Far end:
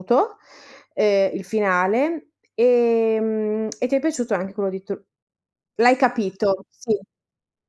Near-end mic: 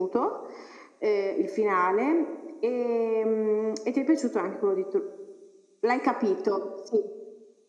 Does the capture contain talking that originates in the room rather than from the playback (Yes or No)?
No